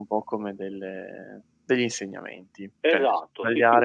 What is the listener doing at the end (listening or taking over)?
taking over